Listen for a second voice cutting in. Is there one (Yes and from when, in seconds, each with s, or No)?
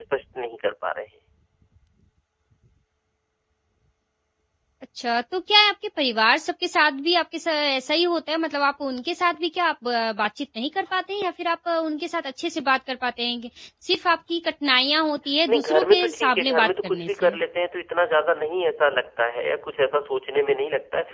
Yes, from 15.5 s